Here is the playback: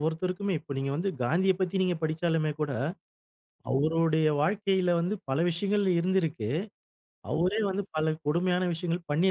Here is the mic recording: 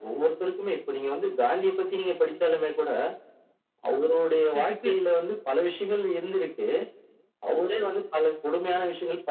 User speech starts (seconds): 4 s

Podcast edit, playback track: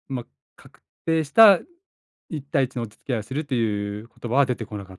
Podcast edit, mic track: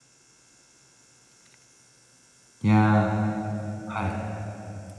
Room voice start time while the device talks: 3 s

